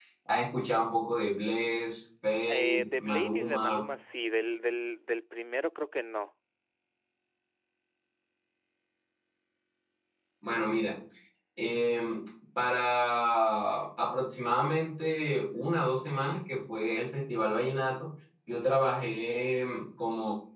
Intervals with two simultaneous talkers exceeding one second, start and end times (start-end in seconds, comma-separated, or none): 2.5-3.8